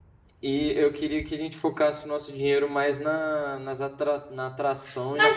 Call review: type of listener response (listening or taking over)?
taking over